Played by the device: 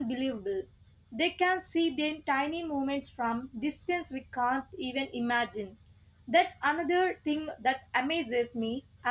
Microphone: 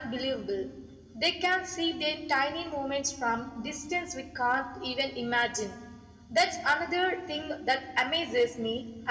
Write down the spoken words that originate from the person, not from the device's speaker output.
none

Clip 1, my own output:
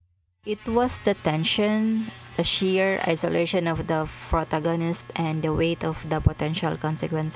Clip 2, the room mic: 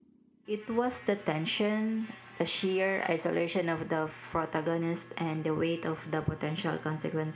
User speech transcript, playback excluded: none

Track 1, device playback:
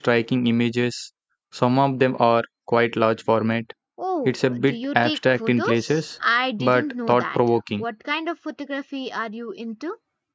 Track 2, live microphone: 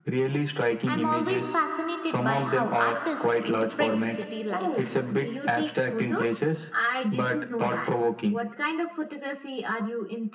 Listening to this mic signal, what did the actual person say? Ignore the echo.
I'm always fascinated by how artists interpret the city life.

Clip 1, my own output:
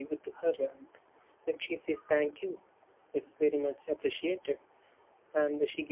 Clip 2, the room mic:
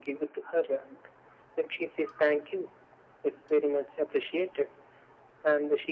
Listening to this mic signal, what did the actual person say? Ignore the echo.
none

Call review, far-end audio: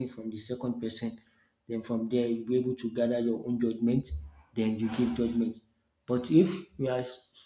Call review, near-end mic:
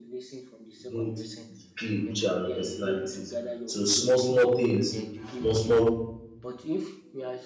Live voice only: mold the clay which are your personalities. So small small things, small small

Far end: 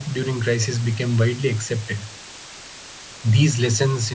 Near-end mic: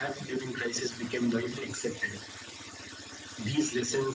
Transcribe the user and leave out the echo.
none

